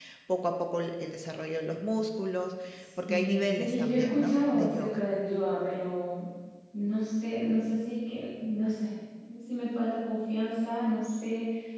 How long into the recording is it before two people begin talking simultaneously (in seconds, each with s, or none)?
3.1 s